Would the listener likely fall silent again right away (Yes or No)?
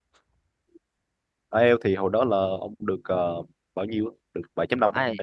No